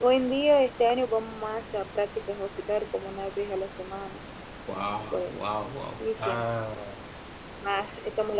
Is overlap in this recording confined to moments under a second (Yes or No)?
Yes